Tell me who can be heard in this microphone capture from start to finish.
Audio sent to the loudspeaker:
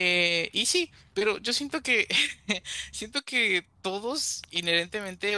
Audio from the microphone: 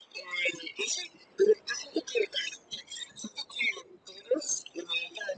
echo only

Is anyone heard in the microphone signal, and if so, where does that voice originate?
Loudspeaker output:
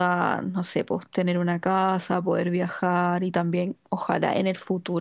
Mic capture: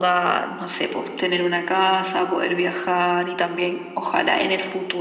echo only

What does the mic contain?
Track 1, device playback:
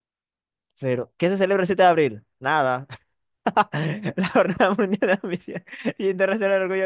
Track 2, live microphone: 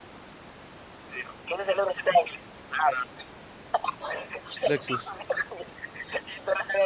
both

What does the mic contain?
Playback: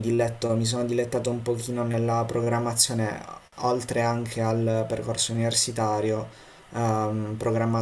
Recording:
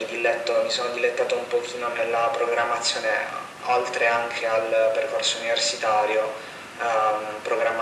echo only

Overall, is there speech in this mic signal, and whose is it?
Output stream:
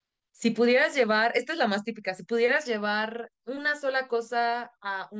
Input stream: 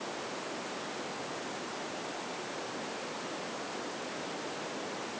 neither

